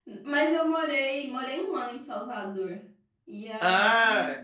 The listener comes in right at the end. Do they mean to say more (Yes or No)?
No